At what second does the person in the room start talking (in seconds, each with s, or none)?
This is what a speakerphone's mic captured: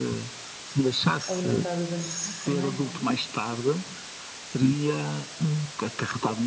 1.3 s